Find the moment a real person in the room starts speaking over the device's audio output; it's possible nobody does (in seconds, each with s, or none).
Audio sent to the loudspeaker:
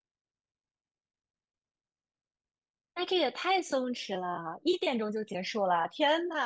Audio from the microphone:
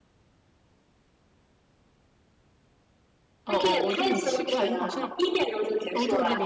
3.5 s